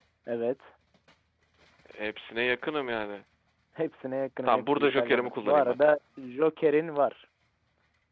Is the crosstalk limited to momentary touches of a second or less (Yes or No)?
No